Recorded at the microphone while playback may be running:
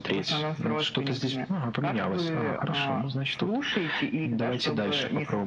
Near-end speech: none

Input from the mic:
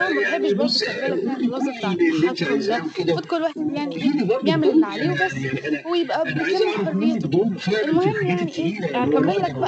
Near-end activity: present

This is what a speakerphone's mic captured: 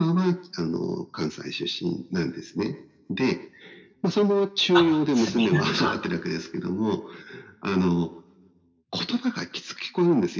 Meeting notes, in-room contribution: present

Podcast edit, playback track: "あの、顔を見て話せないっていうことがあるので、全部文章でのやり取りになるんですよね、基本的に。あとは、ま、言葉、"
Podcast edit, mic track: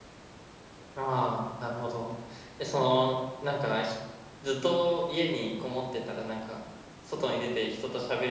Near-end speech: present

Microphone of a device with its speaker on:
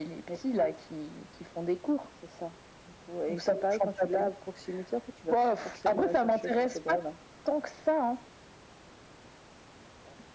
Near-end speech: none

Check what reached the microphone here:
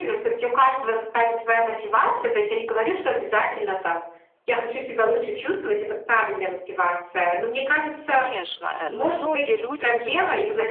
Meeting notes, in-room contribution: present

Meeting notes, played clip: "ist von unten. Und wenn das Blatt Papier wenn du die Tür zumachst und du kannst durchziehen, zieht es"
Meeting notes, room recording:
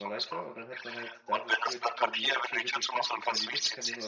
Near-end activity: present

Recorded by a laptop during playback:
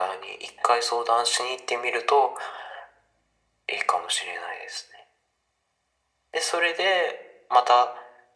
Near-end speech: none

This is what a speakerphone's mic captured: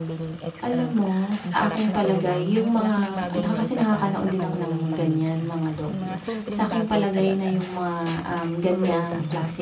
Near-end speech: present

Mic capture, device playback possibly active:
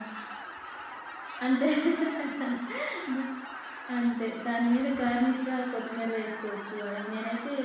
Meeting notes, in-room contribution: none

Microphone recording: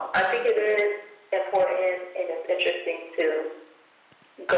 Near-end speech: none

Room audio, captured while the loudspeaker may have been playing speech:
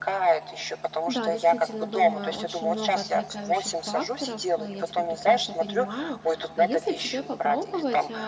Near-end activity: present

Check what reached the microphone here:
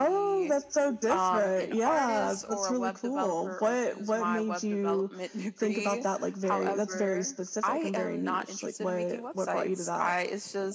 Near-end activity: none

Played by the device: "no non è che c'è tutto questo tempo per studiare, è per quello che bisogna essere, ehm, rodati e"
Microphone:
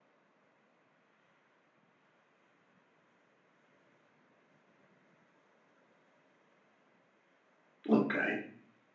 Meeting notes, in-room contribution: present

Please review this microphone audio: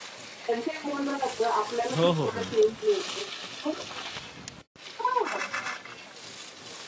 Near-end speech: present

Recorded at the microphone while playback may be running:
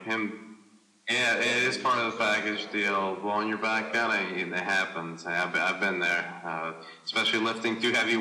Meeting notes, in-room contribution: present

